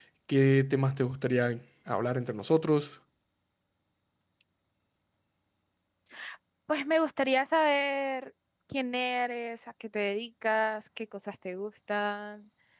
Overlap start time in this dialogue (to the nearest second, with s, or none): none